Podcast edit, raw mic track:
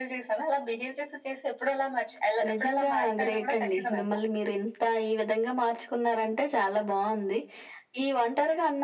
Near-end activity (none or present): none